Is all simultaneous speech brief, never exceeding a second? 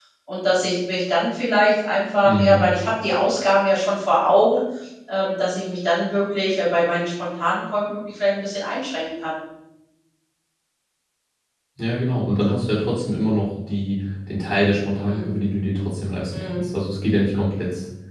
Yes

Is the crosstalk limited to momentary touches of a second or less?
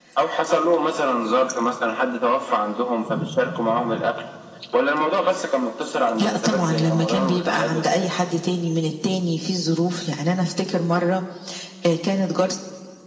No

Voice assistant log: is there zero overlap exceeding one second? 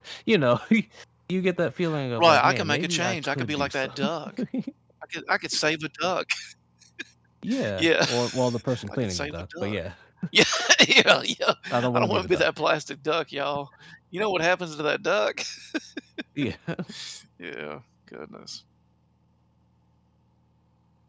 No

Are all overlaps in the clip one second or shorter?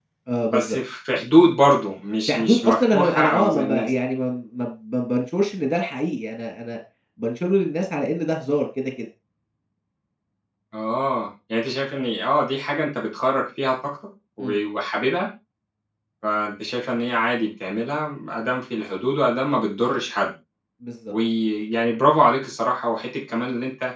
No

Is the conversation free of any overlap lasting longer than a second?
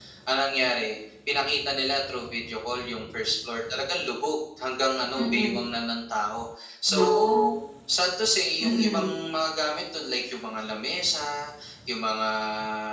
Yes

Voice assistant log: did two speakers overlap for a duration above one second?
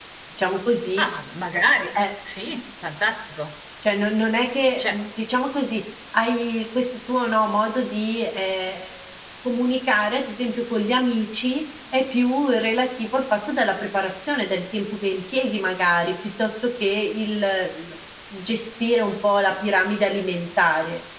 No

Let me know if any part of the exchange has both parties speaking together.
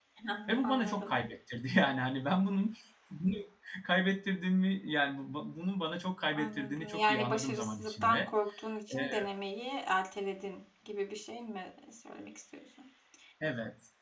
Yes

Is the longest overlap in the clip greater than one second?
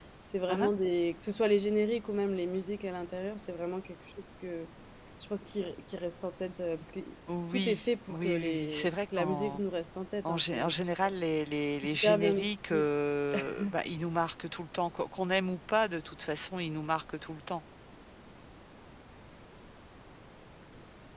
Yes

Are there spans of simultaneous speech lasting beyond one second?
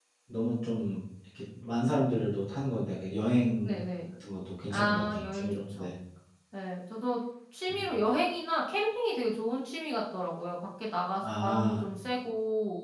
Yes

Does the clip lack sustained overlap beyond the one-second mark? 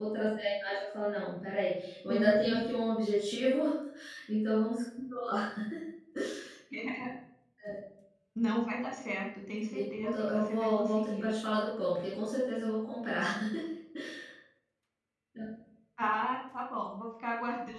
No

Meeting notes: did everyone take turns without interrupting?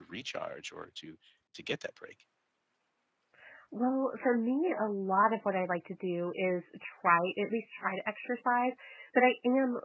Yes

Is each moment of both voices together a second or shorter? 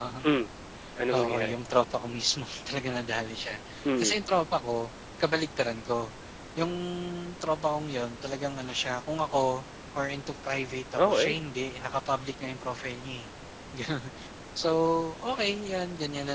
Yes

